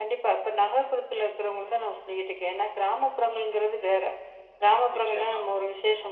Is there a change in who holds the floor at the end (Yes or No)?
No